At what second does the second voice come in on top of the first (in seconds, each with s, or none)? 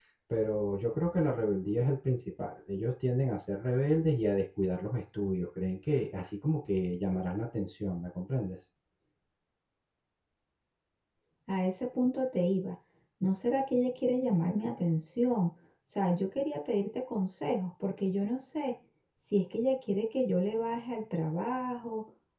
none